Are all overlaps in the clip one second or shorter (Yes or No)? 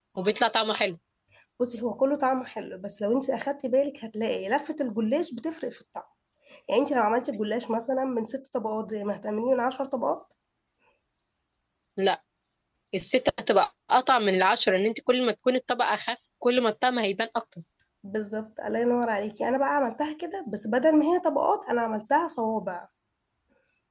Yes